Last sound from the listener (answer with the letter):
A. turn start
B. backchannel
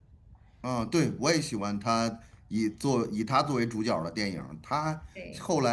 B